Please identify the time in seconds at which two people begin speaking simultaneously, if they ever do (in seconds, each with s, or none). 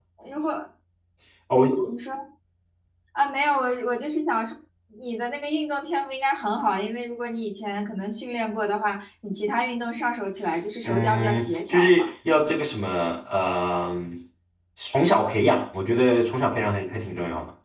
10.8 s